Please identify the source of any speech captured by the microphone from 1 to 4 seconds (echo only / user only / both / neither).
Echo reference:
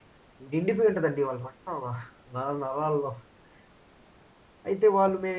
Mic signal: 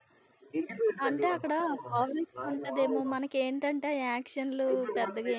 both